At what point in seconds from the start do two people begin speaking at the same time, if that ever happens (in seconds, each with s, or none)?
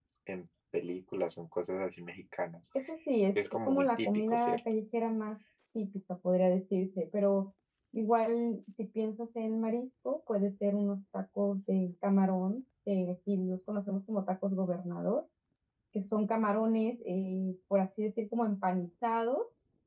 3.4 s